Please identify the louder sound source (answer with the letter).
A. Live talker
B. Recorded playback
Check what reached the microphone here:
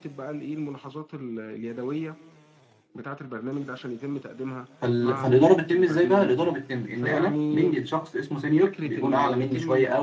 A